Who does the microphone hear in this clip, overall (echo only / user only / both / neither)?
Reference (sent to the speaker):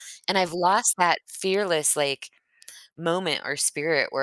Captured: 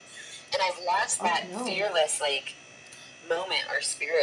both